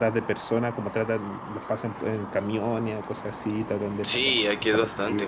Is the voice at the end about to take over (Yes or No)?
Yes